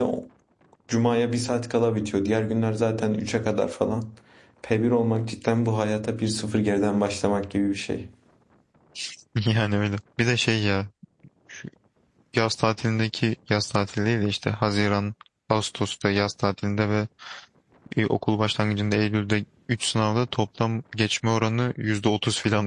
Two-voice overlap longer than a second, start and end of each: none

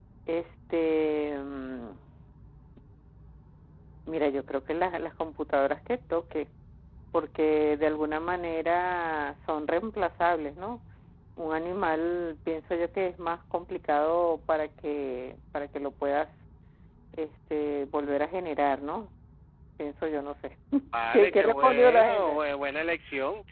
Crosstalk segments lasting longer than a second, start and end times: 21.1-22.4

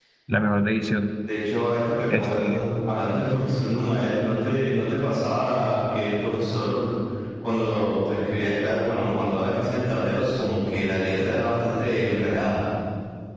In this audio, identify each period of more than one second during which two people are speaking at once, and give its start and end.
none

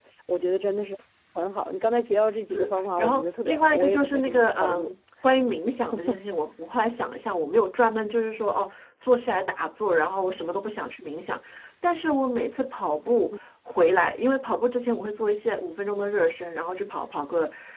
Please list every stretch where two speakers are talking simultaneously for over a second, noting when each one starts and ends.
2.5-4.9

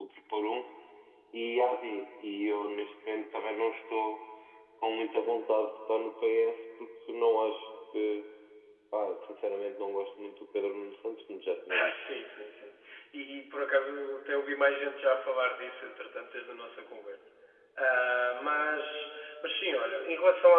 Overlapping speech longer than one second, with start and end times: none

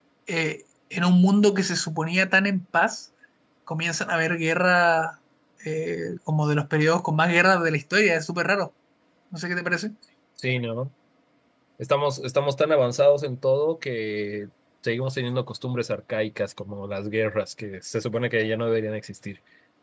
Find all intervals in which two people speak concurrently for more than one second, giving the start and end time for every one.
none

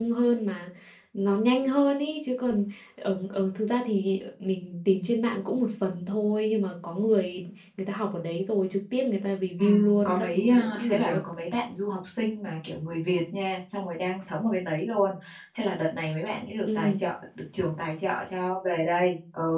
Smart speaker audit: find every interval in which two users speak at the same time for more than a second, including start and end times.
9.6-11.2

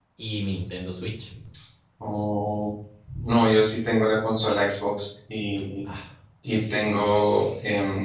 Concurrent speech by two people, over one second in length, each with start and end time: none

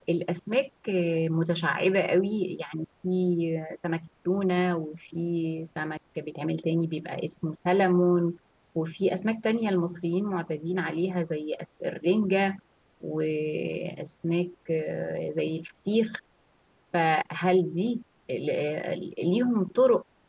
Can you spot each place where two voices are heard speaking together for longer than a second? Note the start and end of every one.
none

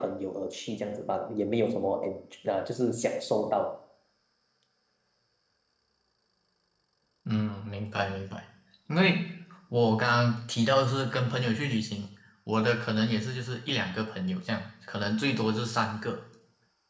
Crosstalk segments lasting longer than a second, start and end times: none

